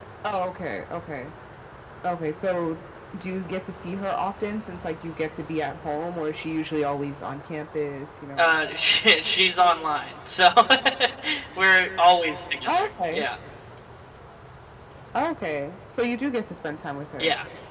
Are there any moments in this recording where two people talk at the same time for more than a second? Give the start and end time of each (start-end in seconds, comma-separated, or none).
none